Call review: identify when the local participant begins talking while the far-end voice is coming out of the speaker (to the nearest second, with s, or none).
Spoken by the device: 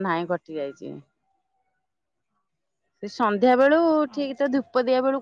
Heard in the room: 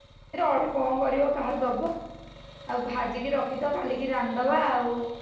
0 s